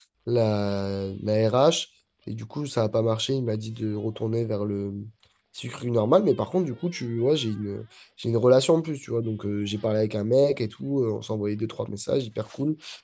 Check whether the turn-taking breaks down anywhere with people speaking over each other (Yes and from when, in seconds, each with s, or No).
No